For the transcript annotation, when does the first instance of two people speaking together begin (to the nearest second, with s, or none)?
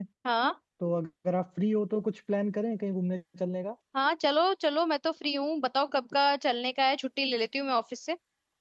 none